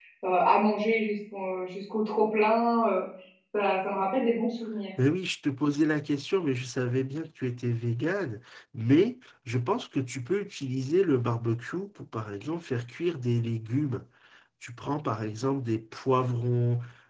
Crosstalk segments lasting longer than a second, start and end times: none

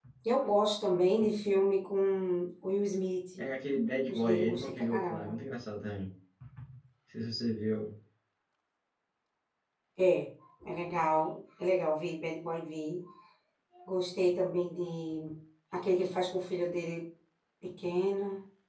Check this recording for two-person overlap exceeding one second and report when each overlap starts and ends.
4.1-5.4

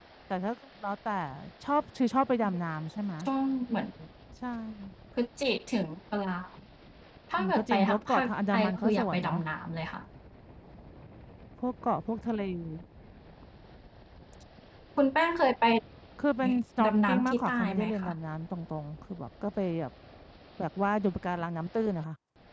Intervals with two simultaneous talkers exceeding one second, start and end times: 7.4-9.4, 16.4-18.1

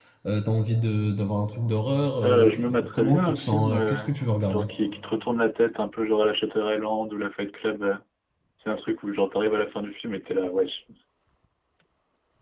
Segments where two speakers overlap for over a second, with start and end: 2.2-4.1

